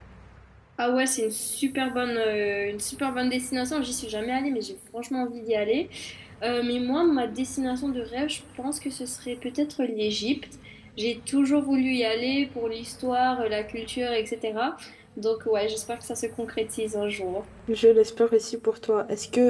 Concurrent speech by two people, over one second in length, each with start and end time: none

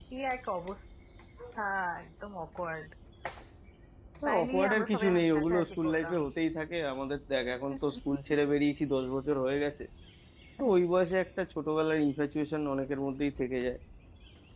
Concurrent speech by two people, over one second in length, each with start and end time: 4.3-6.2

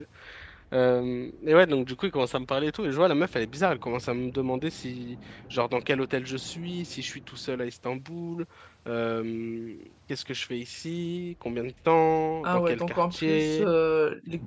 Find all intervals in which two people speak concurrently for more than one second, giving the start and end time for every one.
12.4-13.7

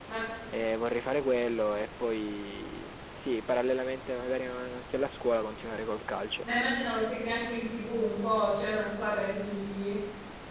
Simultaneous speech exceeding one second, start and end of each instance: none

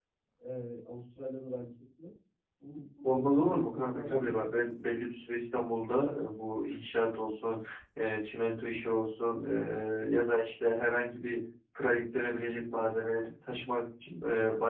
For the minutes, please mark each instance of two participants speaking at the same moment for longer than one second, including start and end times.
3.0-4.8

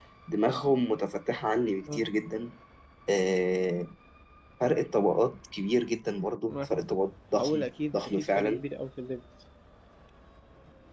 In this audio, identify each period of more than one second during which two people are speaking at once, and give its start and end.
7.4-8.6

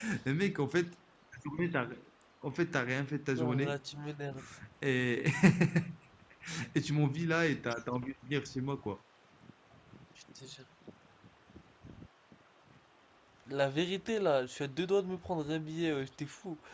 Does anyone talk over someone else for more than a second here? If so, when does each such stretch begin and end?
none

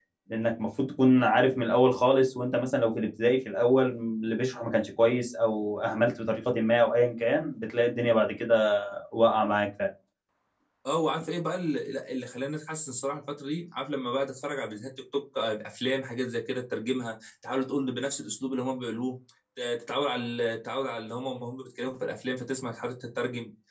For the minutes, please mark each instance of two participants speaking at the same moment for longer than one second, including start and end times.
none

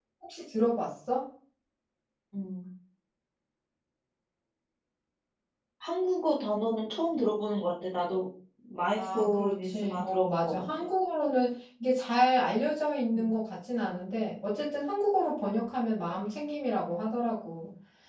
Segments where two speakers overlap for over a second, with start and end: 9.0-10.6

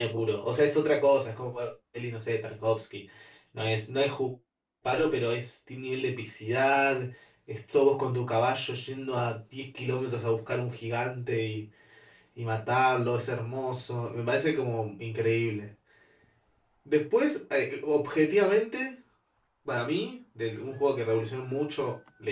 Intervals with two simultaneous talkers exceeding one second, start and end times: none

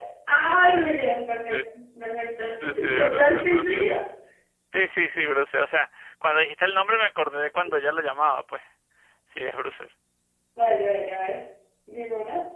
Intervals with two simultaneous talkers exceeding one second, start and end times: 2.6-3.8

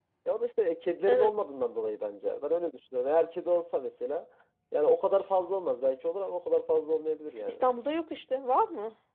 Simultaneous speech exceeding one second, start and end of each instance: none

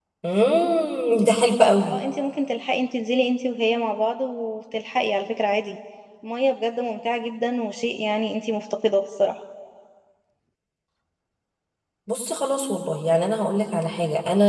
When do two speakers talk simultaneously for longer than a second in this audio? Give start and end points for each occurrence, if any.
none

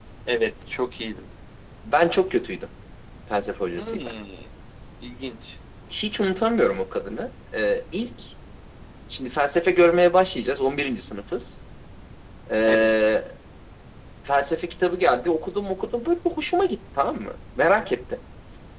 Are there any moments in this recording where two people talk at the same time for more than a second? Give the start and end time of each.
none

